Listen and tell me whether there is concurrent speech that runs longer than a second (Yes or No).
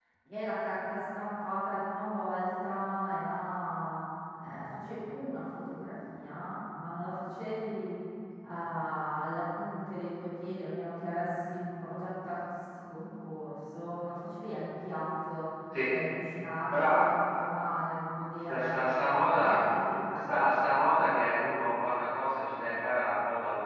No